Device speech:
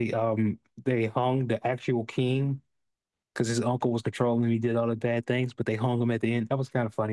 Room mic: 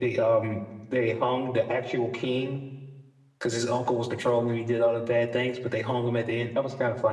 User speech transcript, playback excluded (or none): none